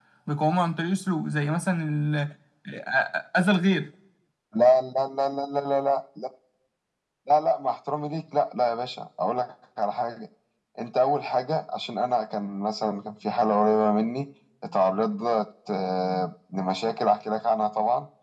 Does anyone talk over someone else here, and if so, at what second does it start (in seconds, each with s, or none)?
none